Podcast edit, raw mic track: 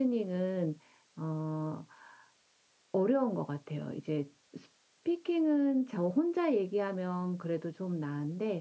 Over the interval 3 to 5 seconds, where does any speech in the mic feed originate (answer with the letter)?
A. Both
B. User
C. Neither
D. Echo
B